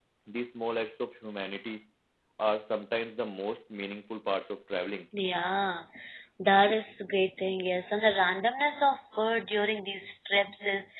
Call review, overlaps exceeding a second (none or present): none